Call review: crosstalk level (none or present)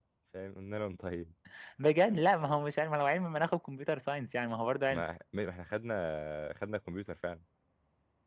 none